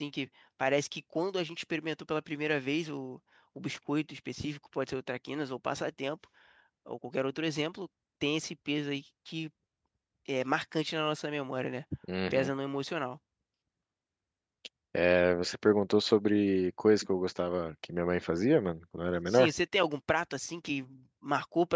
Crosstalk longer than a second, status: none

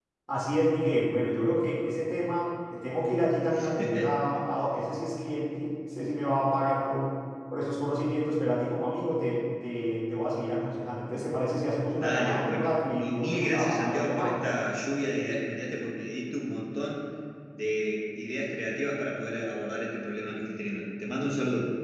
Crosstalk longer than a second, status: present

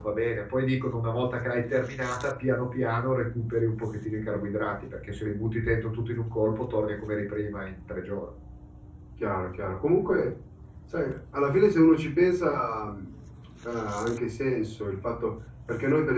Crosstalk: none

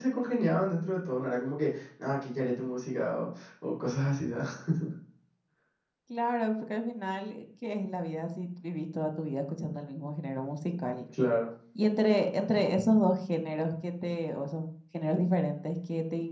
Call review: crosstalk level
none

